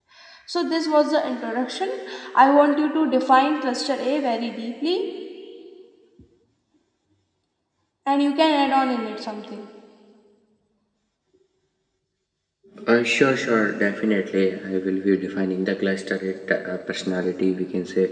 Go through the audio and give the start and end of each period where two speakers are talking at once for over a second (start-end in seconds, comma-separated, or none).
none